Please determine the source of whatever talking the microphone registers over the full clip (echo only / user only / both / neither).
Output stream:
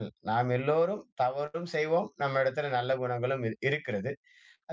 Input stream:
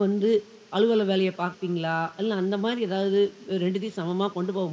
user only